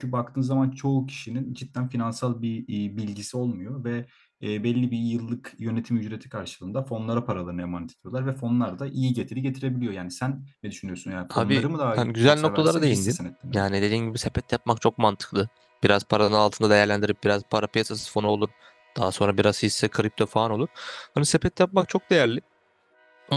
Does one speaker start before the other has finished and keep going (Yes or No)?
Yes